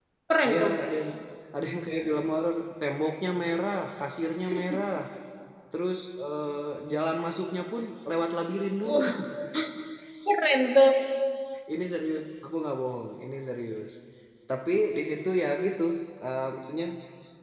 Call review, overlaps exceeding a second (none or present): none